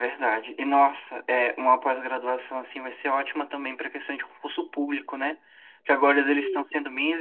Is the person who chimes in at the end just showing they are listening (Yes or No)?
Yes